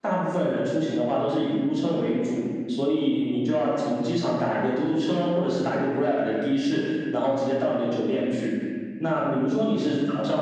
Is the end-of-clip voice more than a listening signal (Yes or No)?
No